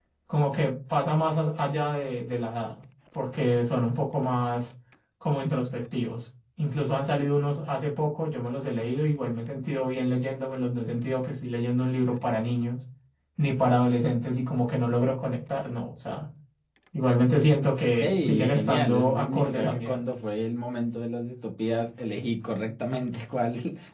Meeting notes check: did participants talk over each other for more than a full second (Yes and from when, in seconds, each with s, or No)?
Yes, from 18.0 s